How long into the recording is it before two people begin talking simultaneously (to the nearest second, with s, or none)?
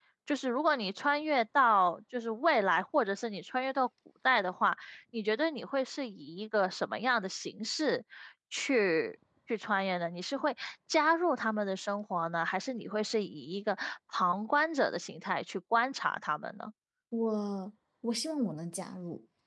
none